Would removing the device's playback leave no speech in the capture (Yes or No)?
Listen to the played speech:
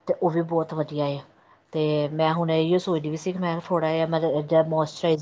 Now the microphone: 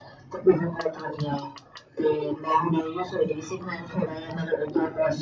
Yes